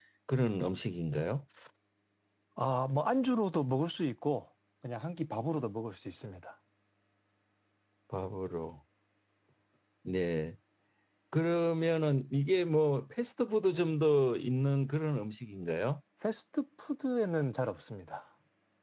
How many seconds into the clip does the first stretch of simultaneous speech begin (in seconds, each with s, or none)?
none